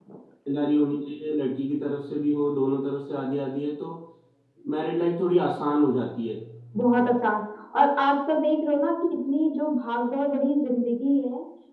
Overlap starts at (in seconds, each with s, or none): none